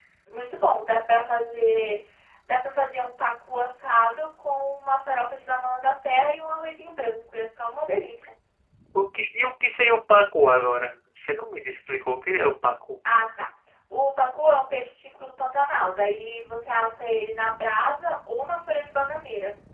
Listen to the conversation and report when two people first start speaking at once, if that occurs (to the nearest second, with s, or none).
none